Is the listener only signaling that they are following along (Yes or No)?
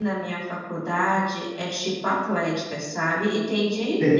Yes